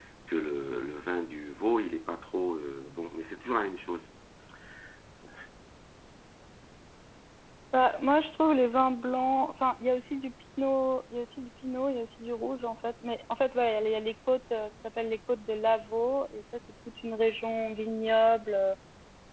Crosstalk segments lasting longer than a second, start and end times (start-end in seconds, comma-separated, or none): none